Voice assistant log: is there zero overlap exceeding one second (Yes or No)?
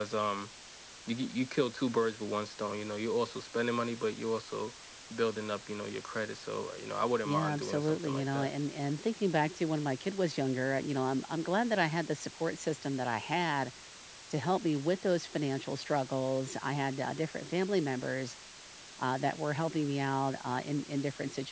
No